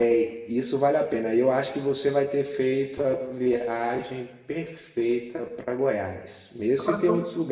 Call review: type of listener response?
listening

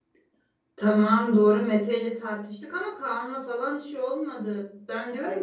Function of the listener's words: listening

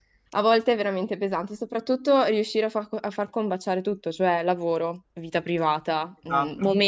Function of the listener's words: listening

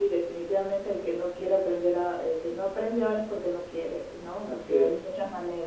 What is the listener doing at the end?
listening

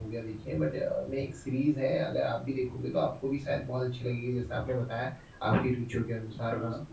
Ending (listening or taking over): listening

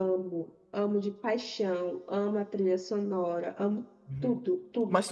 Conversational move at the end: taking over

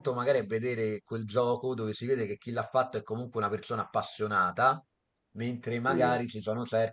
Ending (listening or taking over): listening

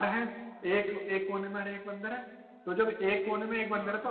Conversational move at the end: listening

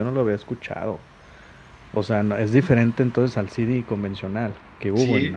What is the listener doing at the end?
taking over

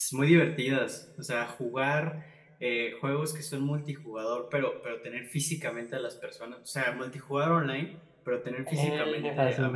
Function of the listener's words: listening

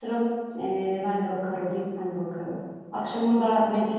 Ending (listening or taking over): listening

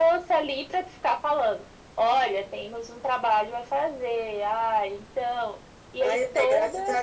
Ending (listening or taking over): taking over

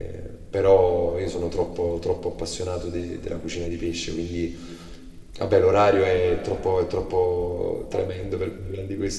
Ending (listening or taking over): listening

